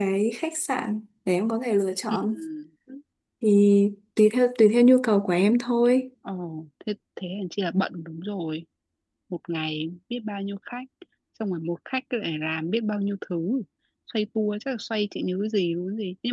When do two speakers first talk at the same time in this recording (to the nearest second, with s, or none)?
none